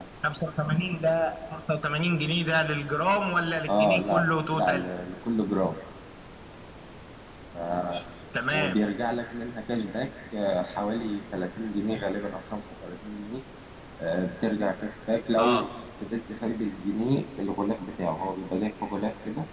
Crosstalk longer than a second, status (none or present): present